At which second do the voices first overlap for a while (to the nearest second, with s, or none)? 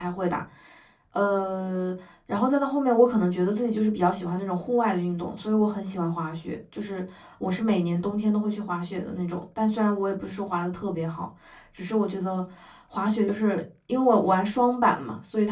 none